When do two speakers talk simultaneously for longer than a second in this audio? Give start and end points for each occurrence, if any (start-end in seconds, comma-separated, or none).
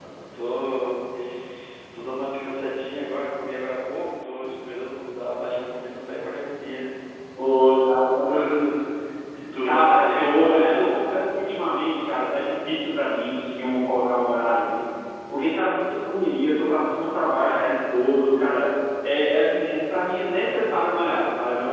9.6-10.9